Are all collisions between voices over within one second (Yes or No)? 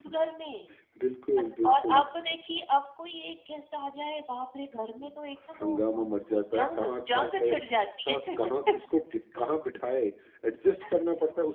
No